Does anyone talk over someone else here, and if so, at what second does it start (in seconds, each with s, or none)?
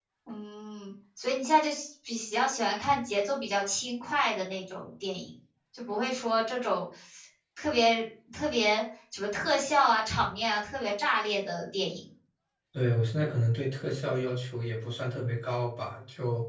none